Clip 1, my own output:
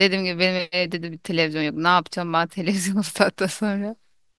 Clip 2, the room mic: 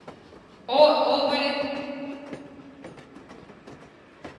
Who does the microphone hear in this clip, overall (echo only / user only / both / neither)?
user only